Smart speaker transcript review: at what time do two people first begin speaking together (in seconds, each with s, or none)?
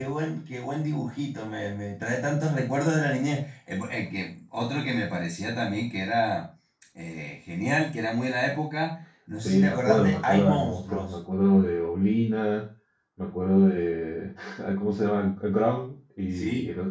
9.4 s